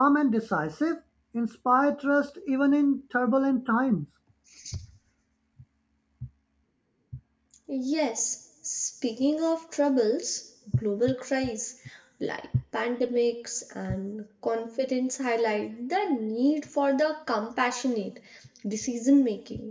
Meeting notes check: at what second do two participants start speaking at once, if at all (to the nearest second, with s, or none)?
none